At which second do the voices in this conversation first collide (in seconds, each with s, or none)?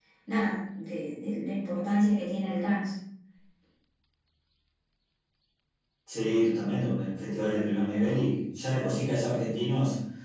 none